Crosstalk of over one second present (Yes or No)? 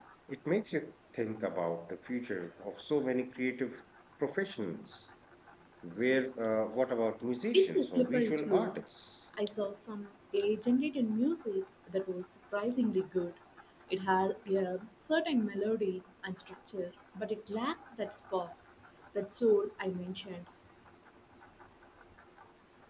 Yes